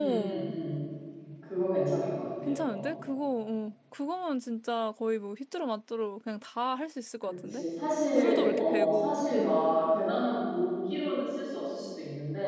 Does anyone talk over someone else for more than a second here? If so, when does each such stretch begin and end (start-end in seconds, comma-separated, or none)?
8.2-9.5